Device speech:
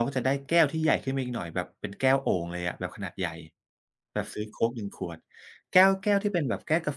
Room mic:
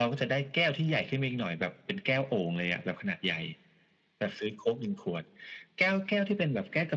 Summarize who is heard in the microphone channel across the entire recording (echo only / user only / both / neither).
echo only